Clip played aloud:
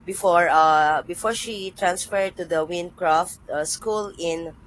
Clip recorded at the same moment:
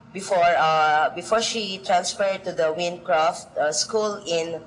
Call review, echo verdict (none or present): present